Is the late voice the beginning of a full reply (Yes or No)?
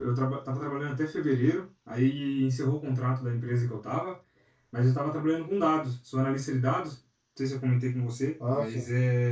No